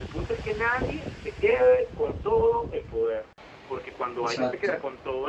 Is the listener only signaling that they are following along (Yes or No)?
Yes